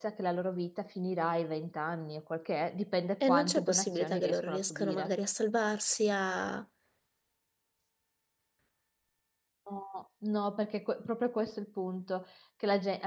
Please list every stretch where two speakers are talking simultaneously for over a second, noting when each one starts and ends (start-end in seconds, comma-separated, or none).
3.3-5.1